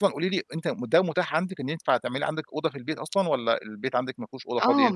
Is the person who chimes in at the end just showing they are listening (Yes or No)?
No